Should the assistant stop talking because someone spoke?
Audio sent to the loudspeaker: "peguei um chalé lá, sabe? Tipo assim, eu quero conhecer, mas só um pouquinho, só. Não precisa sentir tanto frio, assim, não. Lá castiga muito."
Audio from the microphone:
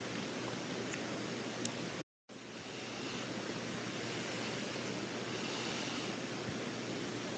No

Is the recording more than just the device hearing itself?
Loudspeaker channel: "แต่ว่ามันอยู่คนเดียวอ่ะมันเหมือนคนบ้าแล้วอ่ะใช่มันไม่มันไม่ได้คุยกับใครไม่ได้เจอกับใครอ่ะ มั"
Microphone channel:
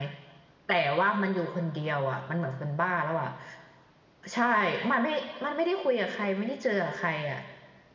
No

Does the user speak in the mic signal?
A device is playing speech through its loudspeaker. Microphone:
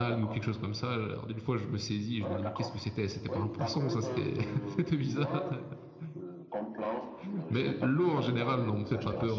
Yes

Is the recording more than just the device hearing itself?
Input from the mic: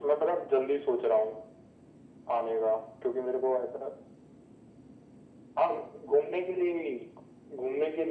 No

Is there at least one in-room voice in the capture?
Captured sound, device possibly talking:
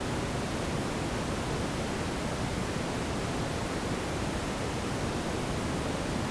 No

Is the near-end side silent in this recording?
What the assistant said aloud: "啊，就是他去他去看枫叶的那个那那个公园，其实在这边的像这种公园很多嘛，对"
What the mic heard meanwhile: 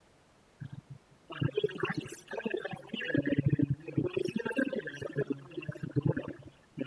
Yes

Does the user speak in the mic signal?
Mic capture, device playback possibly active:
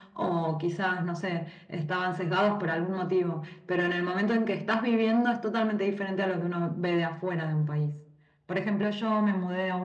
No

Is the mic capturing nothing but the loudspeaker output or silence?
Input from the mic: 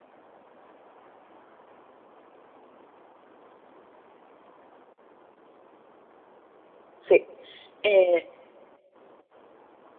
No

